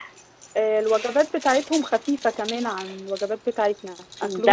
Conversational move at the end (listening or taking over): taking over